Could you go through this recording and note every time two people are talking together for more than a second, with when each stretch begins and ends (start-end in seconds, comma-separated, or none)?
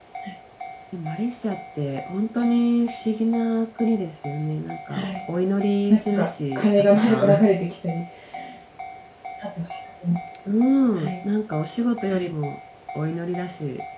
5.9-7.5